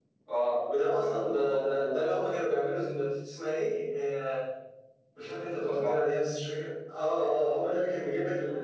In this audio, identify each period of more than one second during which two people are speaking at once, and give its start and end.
0.8-2.0

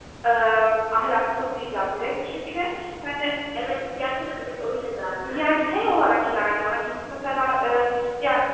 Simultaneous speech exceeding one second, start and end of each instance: none

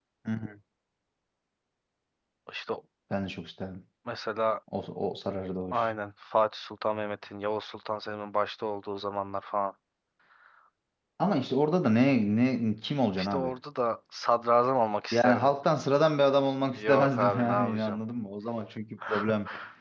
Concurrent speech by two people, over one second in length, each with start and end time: 16.8-18.0

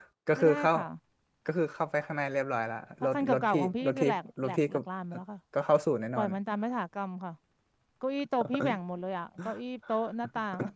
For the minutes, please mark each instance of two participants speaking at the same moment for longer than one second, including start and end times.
3.0-4.8

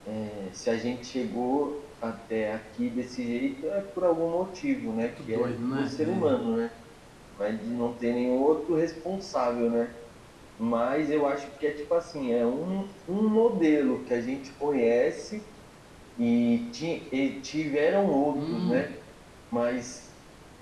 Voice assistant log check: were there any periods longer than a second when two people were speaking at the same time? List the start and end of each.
5.0-6.4

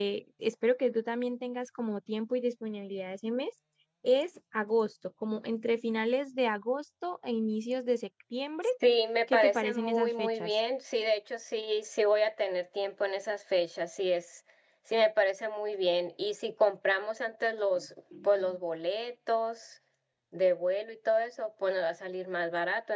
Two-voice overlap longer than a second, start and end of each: 9.3-10.5

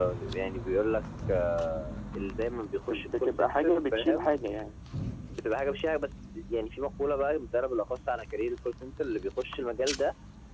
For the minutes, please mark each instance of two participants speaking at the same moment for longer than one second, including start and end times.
2.9-4.4

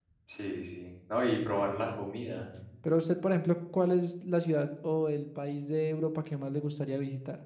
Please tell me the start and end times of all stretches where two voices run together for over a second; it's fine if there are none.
none

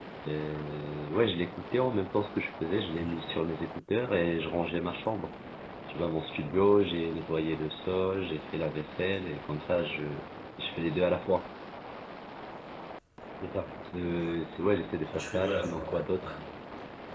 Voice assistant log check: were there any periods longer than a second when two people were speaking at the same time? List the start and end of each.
15.2-16.4

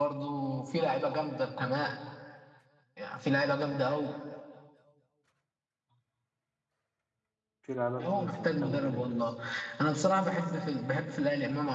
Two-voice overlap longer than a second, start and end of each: 8.1-9.3

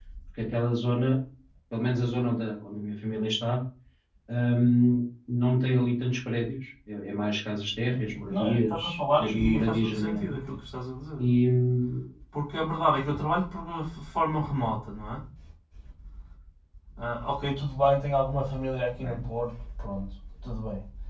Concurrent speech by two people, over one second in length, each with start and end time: 7.9-10.4

